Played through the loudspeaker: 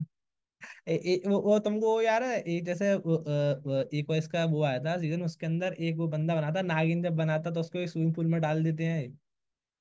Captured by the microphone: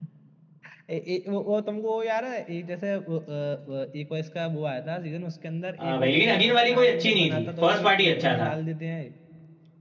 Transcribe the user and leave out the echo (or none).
हाँ भाई लेकिन अगेन वाली कोई अच्छी नहीं थी फर्स्ट पार्ट ही अच्छा था